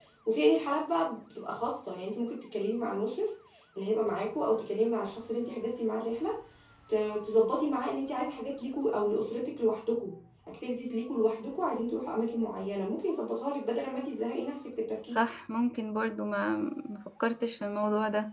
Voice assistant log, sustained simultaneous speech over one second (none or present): none